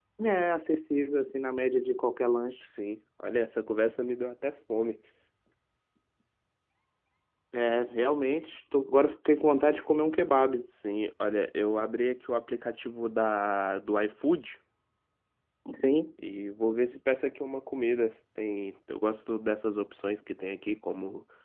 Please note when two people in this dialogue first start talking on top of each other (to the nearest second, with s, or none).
none